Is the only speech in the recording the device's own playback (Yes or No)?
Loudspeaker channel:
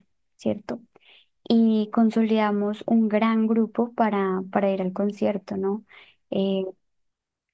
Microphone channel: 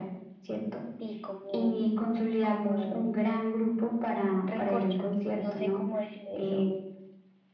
No